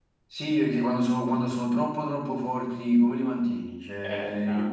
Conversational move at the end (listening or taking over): listening